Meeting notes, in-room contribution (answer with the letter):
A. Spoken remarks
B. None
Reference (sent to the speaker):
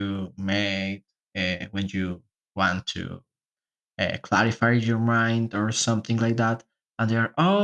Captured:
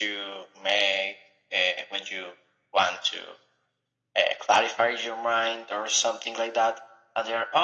B